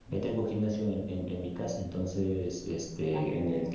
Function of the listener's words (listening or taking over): listening